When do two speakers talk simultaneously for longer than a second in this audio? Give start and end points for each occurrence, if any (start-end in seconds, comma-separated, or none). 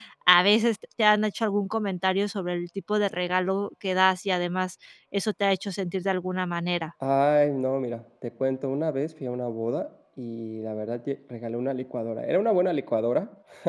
none